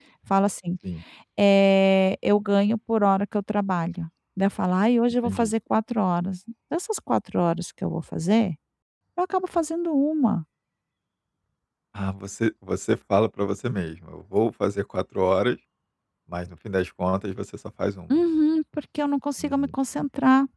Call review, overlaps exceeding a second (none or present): none